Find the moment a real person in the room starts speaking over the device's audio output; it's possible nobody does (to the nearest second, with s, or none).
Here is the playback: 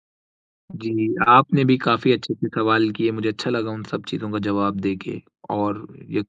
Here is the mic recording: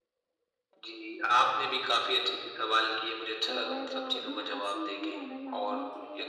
4 s